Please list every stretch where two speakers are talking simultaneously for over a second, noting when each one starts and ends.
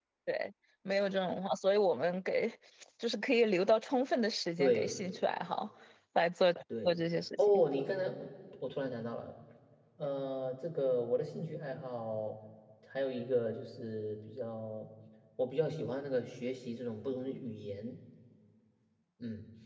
none

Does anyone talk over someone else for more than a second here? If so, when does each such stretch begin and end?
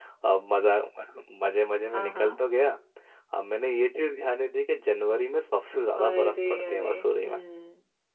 6.0-7.4

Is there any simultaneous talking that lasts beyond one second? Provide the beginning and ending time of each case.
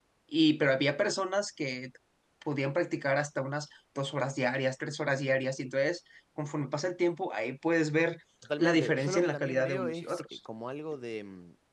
8.6-10.2

